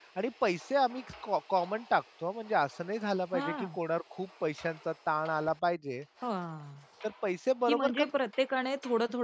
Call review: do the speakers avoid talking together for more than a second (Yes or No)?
Yes